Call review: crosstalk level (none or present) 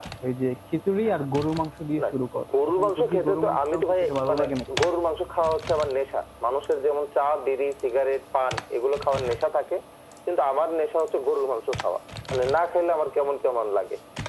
present